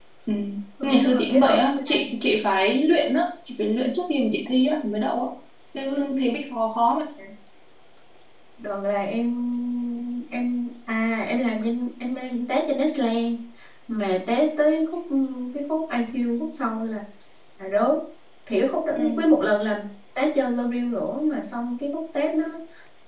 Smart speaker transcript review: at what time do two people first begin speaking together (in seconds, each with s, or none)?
0.8 s